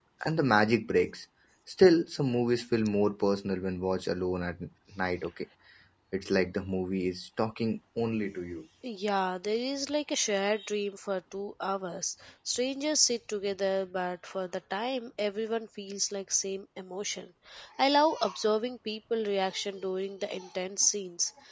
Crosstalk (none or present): none